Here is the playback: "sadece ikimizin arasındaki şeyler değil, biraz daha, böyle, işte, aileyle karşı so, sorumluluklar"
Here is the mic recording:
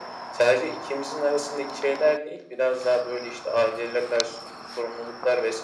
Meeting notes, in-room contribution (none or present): none